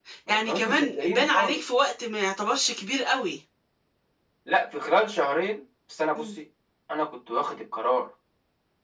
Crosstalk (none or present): present